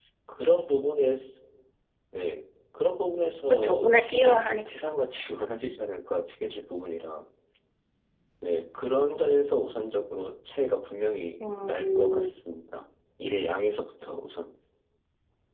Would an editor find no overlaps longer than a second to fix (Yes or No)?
No